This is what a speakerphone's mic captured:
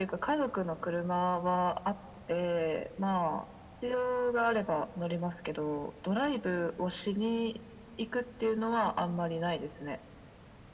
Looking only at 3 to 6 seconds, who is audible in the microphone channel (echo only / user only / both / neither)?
echo only